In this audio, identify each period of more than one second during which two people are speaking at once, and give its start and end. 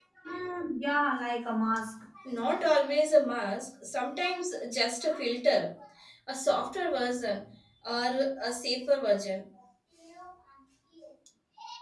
none

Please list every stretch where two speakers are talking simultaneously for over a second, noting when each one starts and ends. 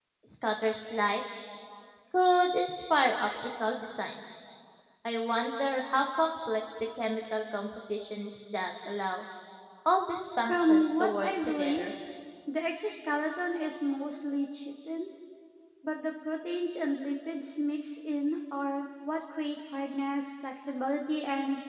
10.5-11.9

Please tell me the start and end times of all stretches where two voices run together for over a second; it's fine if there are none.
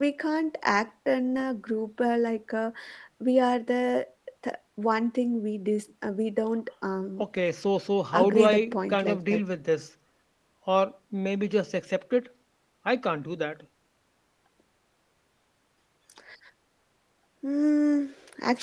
8.1-9.4

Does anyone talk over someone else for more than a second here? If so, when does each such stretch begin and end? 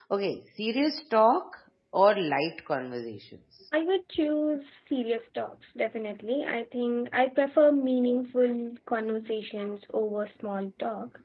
none

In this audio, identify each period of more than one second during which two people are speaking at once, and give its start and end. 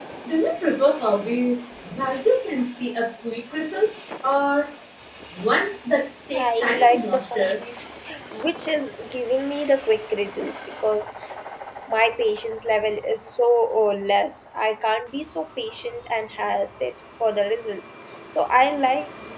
6.3-7.6

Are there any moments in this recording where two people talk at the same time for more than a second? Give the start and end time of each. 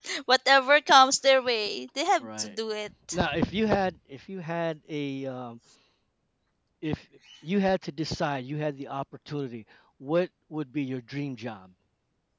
none

